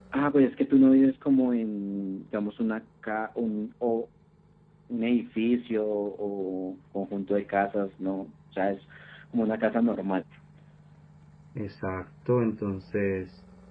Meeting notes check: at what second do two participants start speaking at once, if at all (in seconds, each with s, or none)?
none